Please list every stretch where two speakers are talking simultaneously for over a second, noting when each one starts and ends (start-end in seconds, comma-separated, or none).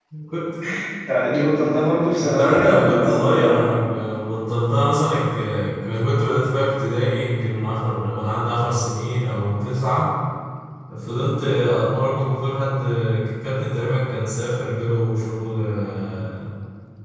2.2-3.8